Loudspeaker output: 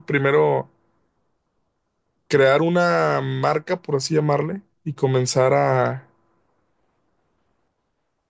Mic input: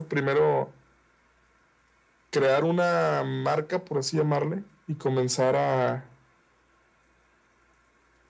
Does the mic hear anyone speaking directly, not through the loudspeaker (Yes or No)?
No